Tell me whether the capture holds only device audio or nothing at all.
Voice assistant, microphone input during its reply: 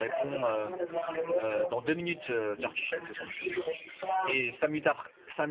No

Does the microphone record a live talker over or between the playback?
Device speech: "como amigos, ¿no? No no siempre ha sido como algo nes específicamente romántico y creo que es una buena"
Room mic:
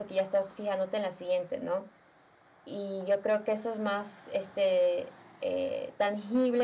Yes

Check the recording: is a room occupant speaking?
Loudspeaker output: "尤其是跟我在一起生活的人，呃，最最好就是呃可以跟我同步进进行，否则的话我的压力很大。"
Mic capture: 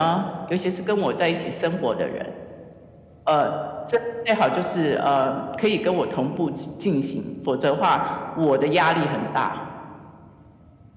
No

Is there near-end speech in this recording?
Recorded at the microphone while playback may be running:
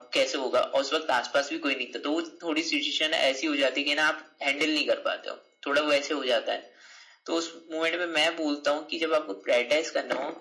No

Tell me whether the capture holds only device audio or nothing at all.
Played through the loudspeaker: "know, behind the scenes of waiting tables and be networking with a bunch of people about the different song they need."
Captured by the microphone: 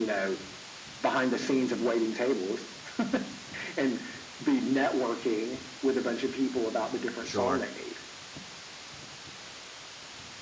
No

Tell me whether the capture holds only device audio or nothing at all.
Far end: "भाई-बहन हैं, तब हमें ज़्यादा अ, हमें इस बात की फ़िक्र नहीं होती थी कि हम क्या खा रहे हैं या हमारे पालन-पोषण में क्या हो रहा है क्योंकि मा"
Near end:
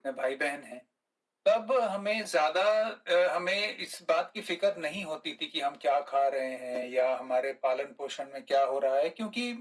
Yes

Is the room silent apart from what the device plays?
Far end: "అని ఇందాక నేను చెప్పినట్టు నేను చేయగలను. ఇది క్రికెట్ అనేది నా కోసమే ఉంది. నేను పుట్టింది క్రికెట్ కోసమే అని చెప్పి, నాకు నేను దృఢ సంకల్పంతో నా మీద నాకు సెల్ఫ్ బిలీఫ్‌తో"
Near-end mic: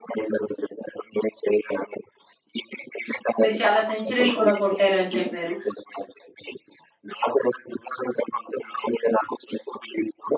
No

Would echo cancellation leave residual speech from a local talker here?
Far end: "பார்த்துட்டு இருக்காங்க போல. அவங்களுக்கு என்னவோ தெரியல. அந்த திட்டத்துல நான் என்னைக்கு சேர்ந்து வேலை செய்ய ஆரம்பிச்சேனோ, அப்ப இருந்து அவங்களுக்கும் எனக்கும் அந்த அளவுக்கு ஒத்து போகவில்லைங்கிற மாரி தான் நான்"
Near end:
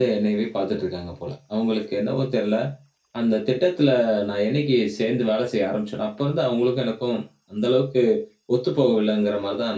No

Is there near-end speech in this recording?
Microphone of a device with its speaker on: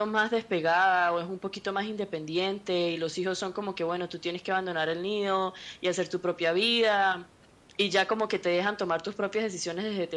No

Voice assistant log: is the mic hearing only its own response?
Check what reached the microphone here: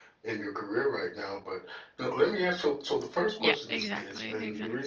No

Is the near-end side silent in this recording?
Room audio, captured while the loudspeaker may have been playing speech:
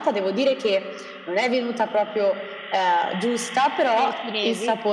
No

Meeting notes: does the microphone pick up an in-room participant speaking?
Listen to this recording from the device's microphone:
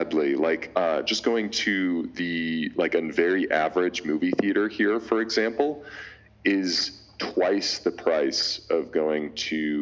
No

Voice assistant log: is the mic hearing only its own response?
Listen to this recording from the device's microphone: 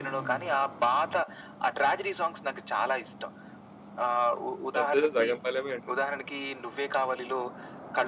No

